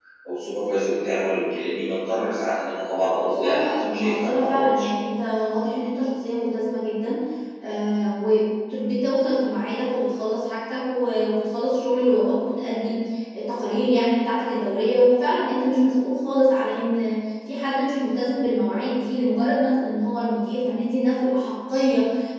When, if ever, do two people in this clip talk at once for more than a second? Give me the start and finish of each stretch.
3.4-4.9

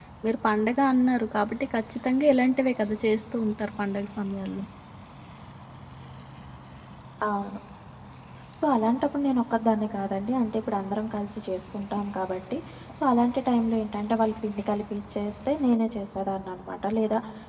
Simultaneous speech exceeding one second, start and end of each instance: none

